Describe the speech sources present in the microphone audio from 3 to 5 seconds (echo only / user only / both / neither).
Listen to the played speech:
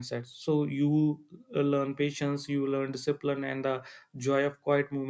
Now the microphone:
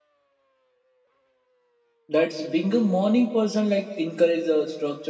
user only